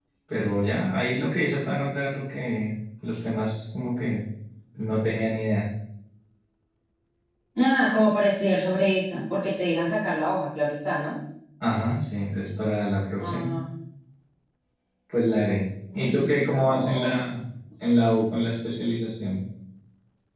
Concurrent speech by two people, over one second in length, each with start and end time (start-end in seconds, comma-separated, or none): 15.9-17.2